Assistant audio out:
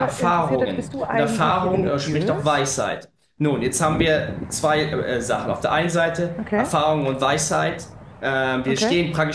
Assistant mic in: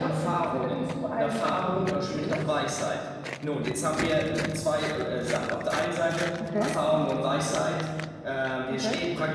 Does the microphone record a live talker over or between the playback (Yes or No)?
No